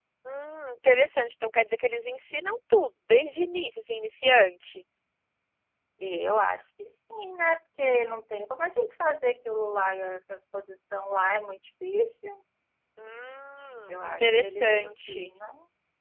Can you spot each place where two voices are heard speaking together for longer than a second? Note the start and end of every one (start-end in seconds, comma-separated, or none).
13.9-15.3